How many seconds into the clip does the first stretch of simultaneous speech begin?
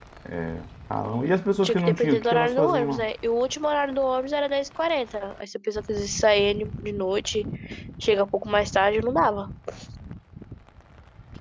2 s

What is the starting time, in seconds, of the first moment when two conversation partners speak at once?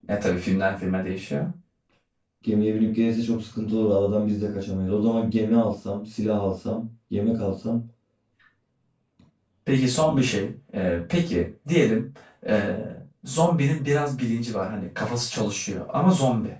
none

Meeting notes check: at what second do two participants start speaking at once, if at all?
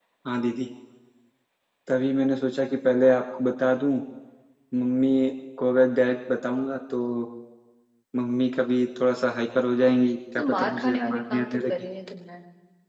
10 s

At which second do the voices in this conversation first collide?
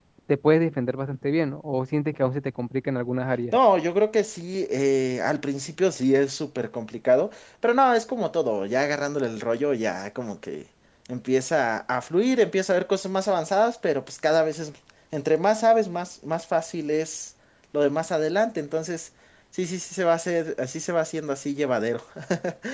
none

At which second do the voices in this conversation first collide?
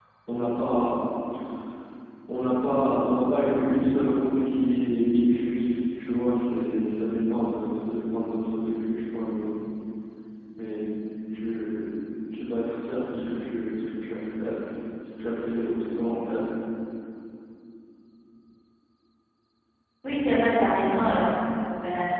none

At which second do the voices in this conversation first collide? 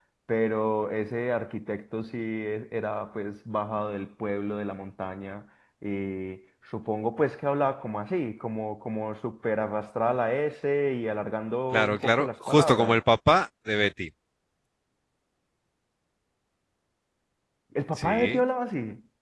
12 s

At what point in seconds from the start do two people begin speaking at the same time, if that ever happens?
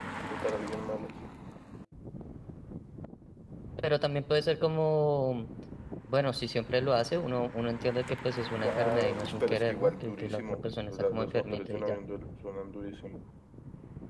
9 s

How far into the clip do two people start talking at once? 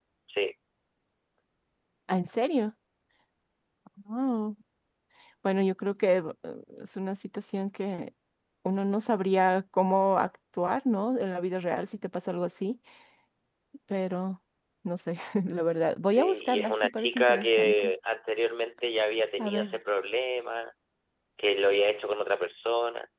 16 s

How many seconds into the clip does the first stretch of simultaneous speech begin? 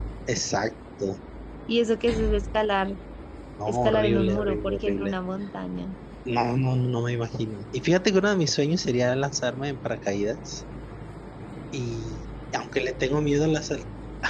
4 s

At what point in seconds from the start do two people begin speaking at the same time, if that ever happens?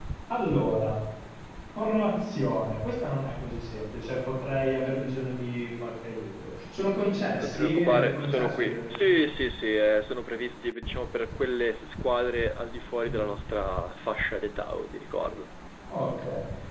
7 s

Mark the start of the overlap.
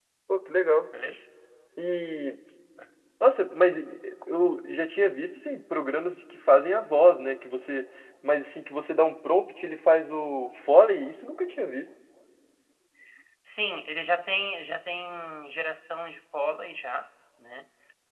none

